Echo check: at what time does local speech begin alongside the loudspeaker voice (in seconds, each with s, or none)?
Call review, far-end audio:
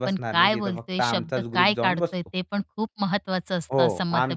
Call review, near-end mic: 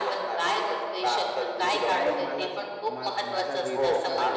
1.6 s